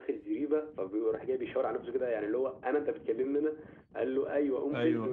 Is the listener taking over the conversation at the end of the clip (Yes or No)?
No